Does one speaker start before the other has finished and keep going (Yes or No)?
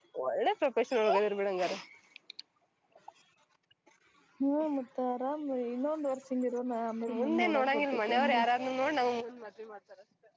Yes